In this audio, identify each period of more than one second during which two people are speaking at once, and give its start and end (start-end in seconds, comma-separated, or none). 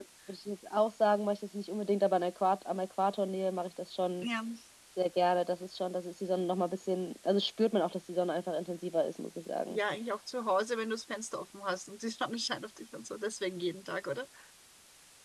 none